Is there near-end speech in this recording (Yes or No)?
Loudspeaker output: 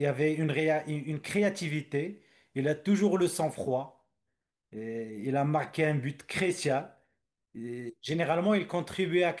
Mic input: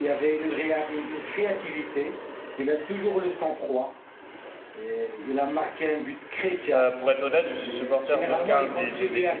Yes